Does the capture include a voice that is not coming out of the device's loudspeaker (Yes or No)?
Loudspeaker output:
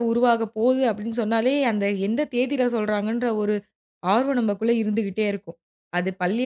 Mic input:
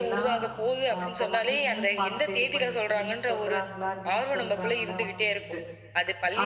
Yes